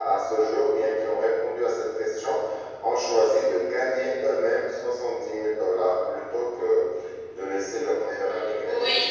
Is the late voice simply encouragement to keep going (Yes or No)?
No